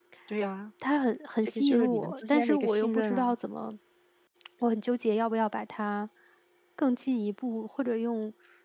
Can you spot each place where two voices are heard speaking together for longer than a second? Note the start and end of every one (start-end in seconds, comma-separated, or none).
1.4-3.4